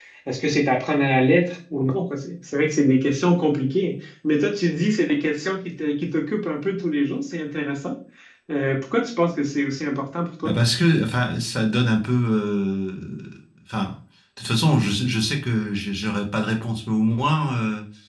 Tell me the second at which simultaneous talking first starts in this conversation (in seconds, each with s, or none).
none